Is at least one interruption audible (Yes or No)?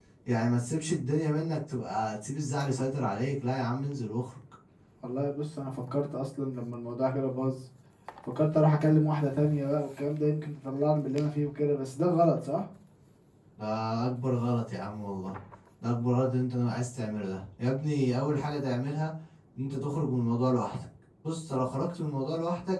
No